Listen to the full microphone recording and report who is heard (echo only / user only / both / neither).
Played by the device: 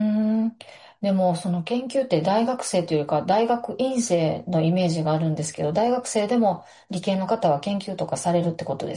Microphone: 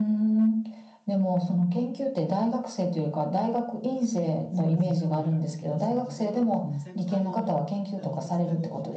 both